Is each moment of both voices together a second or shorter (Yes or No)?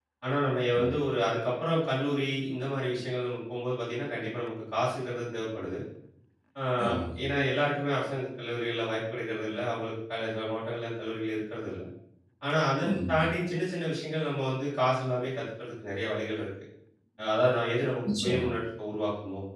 Yes